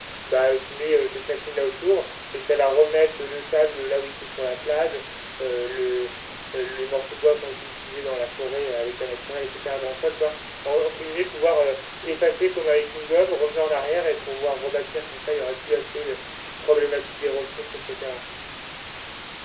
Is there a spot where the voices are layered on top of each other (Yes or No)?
No